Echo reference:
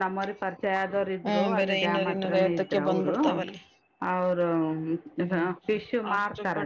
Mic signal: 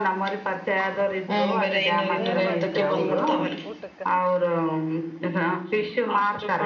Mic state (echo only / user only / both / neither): both